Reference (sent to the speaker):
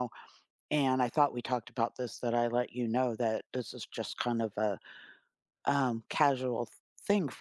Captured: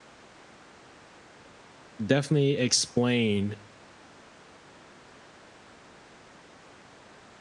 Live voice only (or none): definitely explain